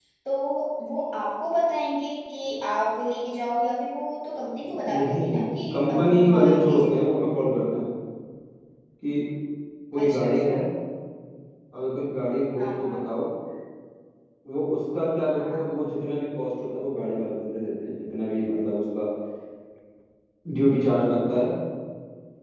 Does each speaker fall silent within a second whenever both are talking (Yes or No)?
No